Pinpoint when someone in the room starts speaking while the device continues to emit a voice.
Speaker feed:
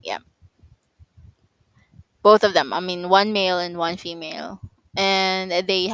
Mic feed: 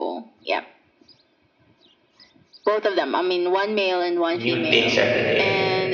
4.5 s

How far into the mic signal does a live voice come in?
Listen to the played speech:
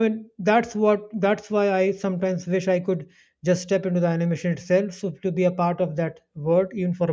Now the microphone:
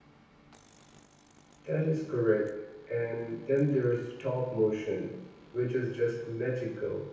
1.6 s

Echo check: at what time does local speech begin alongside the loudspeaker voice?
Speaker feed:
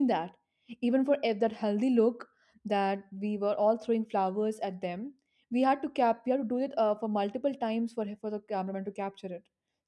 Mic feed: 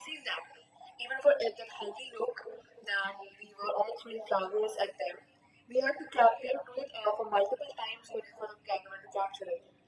none

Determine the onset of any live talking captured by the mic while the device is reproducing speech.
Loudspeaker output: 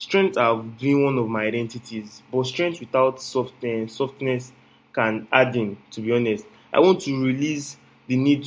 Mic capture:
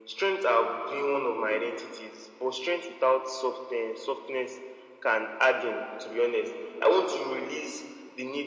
none

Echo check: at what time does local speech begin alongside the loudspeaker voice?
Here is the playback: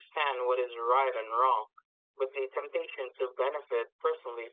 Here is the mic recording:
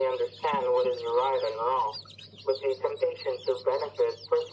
none

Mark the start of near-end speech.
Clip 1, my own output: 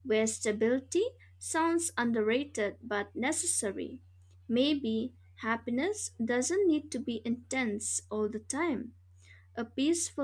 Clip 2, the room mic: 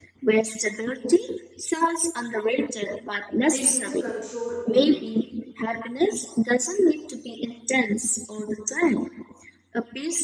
3.4 s

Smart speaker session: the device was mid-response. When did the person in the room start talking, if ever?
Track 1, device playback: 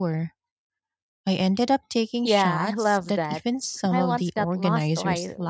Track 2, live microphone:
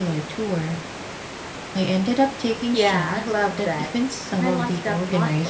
none

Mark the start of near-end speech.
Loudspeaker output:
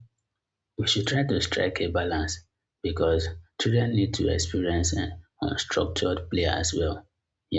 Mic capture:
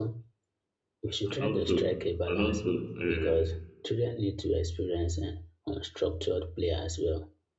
1.2 s

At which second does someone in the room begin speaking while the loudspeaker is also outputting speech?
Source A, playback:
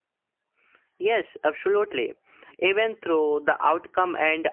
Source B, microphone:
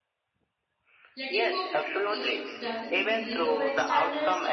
1.2 s

